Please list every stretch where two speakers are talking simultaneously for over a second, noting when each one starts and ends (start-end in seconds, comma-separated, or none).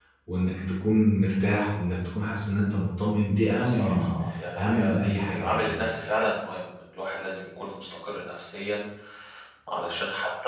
4.6-5.9